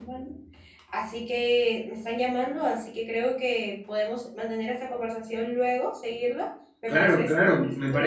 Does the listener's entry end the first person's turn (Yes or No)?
Yes